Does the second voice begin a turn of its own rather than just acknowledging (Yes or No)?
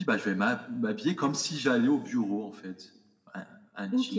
Yes